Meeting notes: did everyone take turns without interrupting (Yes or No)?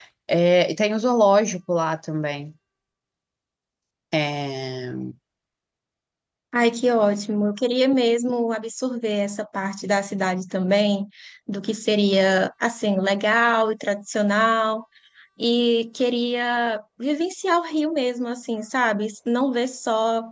Yes